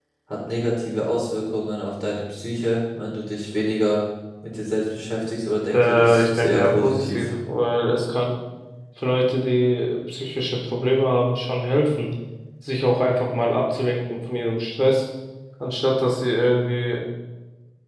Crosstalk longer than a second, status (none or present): present